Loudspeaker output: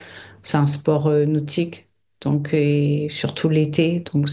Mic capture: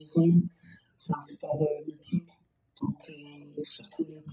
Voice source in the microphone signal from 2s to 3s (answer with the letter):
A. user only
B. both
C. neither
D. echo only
D